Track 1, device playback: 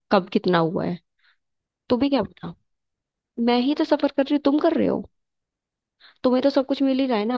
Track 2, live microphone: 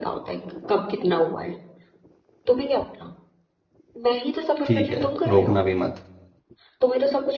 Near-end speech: present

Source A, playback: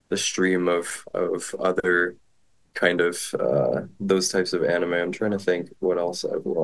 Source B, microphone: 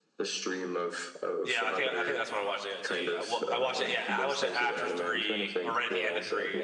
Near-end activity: present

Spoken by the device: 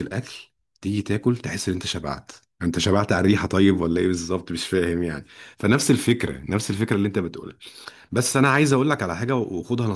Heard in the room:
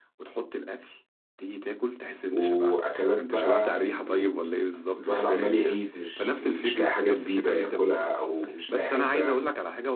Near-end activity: present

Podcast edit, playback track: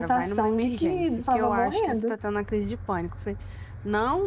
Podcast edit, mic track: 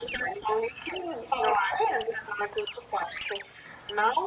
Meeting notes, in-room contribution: none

